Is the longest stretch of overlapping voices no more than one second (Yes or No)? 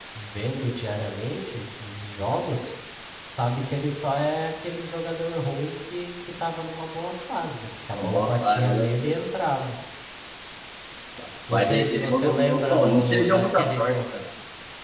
No